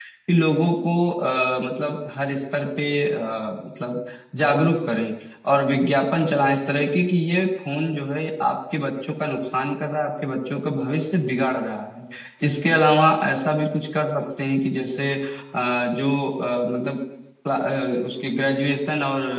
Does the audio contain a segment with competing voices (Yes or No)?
No